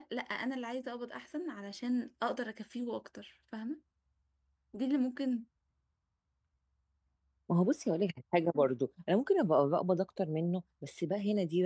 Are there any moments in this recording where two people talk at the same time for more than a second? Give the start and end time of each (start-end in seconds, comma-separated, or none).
none